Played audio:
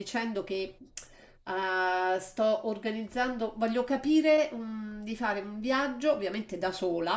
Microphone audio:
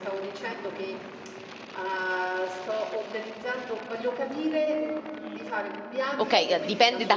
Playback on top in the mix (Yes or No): No